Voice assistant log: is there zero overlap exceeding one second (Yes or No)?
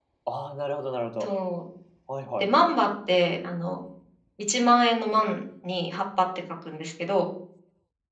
Yes